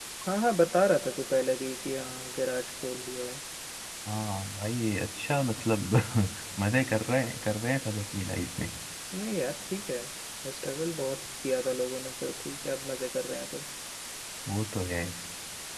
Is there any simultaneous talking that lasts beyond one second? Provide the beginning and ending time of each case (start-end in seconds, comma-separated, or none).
none